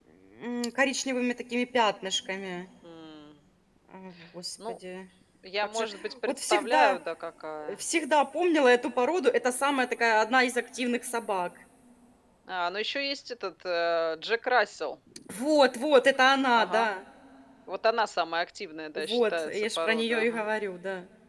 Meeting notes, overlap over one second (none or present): present